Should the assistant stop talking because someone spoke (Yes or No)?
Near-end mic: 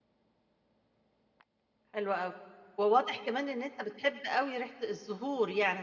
Yes